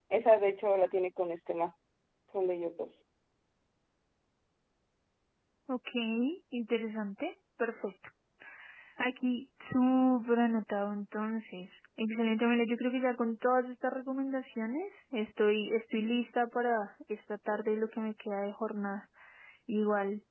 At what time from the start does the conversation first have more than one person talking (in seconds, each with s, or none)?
none